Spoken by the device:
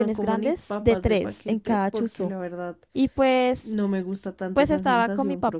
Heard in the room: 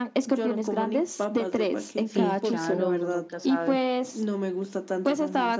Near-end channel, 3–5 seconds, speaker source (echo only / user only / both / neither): both